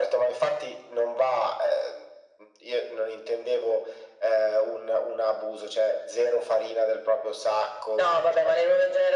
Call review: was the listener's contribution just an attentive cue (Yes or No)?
No